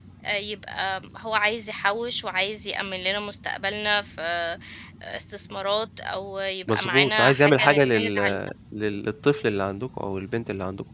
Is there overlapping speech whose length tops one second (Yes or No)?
Yes